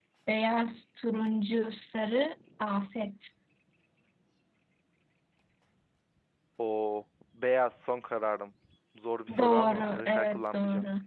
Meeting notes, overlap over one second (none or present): present